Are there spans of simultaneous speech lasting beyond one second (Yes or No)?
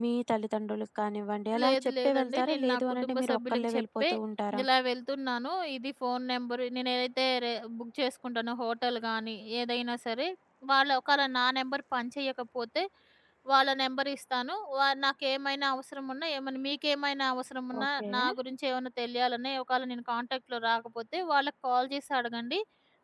Yes